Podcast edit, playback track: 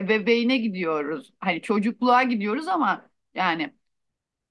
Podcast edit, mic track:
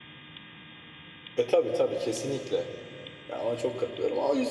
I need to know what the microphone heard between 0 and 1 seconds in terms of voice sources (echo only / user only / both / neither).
neither